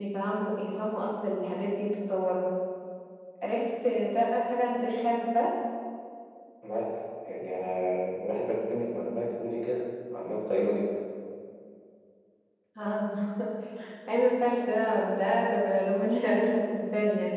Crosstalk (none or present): none